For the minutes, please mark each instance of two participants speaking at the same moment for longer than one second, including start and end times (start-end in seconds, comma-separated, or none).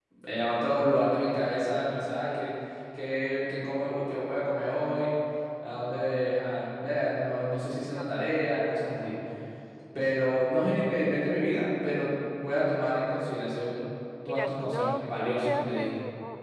14.3-15.9